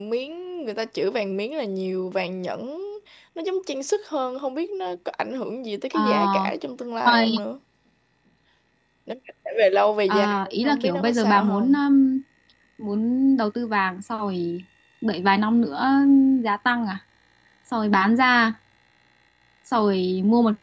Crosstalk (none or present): present